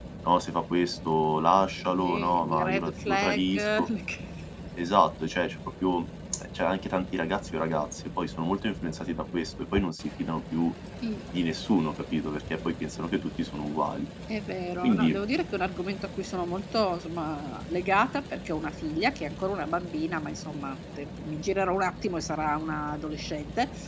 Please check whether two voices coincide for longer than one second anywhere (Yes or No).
Yes